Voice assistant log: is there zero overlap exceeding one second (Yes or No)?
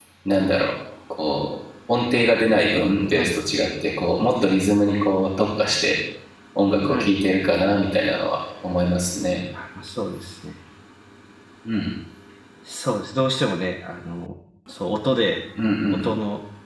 Yes